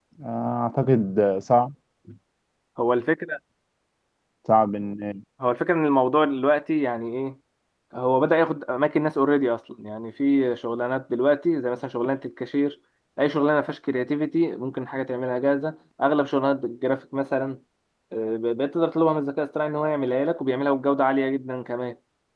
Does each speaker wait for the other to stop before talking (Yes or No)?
Yes